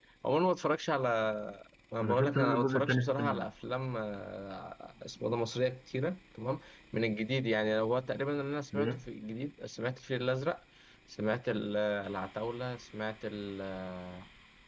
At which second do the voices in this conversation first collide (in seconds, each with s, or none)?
2.0 s